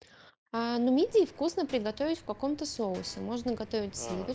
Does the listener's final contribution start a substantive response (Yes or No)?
No